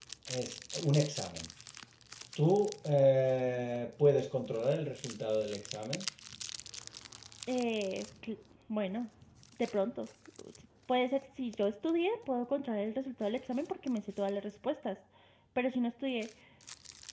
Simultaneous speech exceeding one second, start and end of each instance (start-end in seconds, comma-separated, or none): none